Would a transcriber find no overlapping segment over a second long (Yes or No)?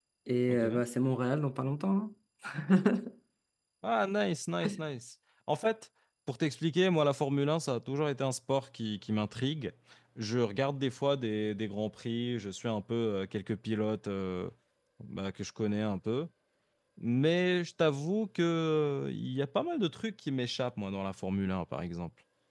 Yes